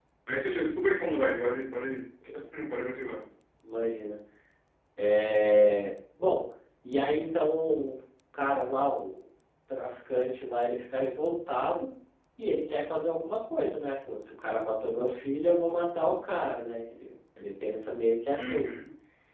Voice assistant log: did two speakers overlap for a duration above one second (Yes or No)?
No